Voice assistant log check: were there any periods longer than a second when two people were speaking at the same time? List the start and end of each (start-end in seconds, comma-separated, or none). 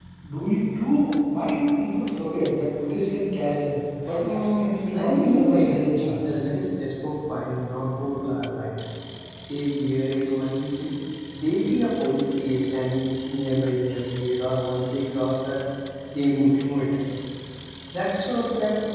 5.0-6.4